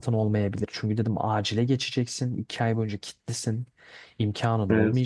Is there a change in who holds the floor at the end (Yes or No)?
No